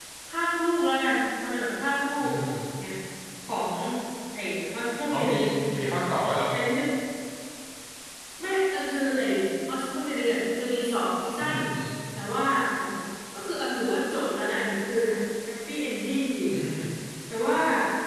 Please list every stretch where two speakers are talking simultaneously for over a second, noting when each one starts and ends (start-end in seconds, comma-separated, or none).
none